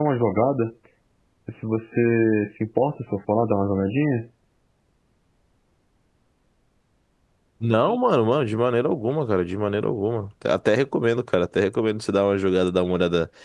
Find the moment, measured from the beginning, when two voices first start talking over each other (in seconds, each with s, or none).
none